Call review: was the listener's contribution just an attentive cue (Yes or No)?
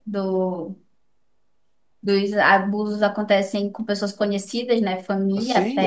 No